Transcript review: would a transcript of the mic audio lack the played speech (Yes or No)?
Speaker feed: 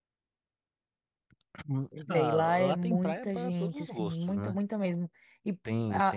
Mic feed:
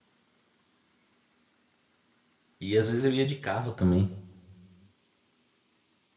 Yes